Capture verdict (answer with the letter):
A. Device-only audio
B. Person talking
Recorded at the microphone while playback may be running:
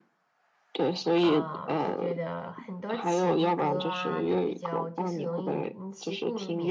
B